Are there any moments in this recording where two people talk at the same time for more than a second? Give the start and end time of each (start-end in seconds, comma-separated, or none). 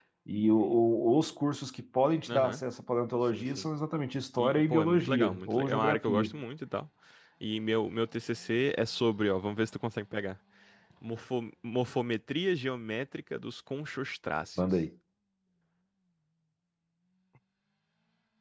4.4-6.3